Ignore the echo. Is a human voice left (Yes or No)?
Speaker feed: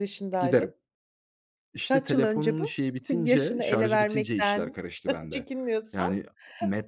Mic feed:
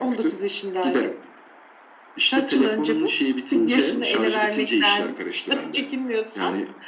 No